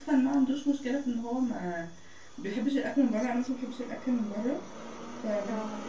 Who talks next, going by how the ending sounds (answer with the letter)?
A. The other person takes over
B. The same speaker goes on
B